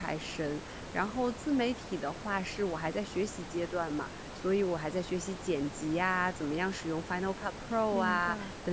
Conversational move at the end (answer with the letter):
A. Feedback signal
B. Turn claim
A